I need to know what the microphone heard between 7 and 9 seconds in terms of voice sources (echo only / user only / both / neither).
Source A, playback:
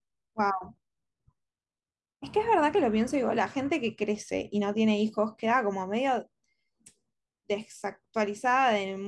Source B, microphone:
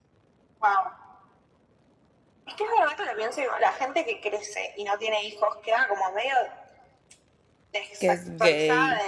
both